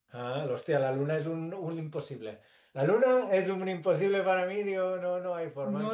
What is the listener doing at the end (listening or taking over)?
taking over